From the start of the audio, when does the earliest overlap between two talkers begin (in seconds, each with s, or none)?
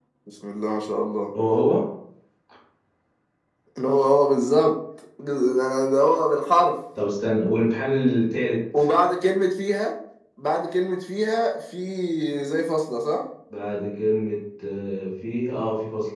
none